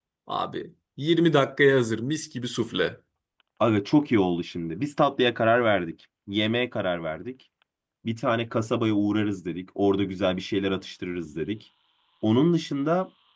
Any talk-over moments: No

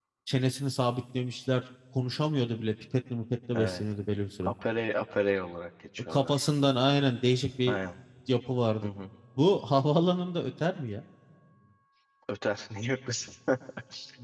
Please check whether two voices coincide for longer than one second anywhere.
No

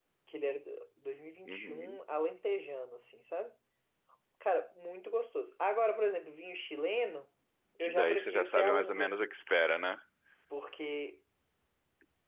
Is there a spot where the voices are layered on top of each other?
Yes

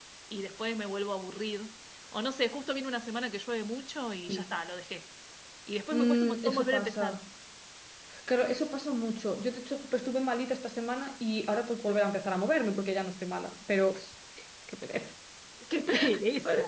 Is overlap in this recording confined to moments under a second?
No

